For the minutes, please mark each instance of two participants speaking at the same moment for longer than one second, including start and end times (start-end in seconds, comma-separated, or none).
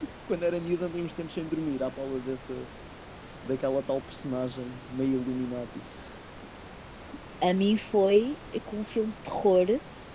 none